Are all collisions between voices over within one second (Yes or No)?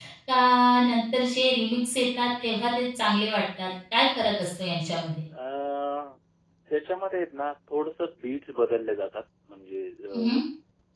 Yes